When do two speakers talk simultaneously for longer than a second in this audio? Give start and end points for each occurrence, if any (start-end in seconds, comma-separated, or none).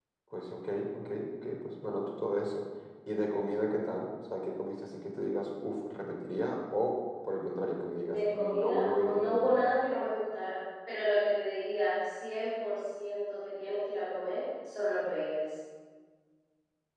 8.0-9.7